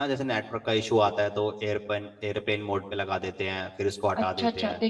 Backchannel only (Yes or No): No